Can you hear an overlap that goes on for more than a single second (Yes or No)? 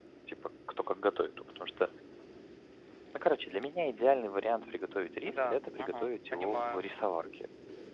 Yes